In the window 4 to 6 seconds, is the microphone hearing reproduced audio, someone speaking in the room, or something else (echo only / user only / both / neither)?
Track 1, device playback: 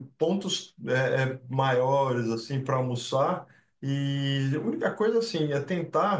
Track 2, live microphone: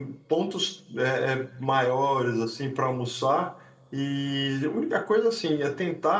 echo only